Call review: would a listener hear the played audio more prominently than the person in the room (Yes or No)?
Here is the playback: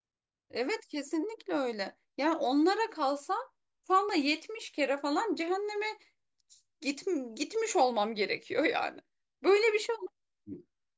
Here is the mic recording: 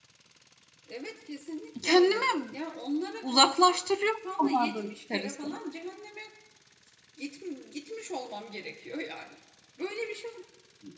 No